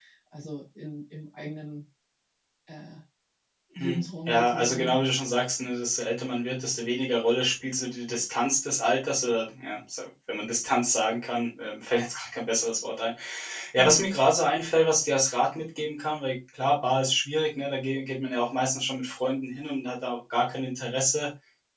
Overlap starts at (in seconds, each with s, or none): 3.8 s